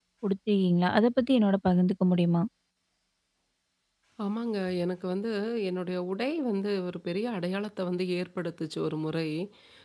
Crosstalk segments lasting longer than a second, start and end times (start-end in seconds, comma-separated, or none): none